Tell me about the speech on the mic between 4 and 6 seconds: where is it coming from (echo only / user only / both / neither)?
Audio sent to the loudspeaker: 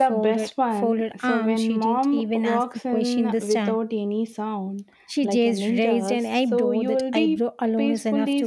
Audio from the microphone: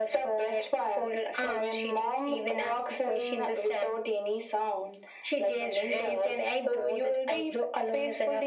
echo only